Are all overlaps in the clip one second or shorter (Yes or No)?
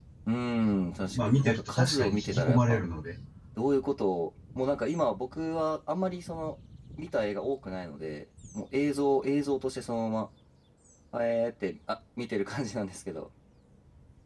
No